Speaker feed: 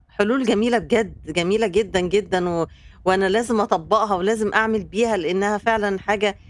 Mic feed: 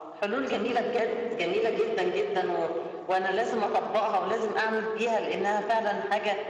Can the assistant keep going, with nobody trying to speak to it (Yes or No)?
Yes